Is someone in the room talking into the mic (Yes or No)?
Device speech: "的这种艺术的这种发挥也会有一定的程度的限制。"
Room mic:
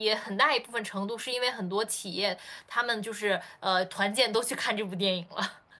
Yes